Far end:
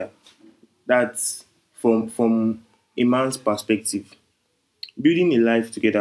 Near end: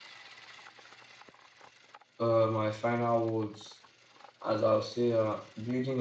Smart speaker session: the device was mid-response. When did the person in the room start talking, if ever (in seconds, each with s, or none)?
2.2 s